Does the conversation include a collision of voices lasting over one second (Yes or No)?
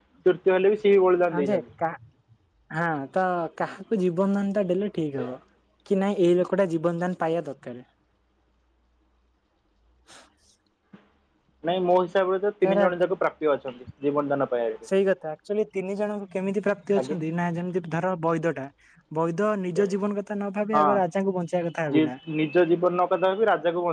No